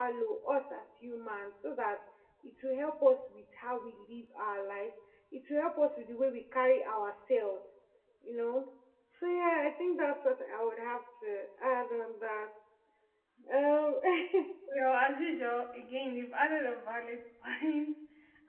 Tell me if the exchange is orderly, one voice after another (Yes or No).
Yes